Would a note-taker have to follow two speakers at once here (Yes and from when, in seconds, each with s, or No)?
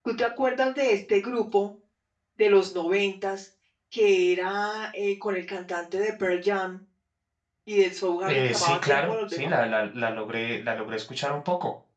Yes, from 8.3 s